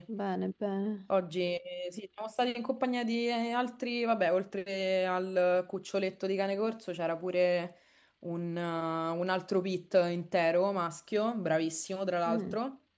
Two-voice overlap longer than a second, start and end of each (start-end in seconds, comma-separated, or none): none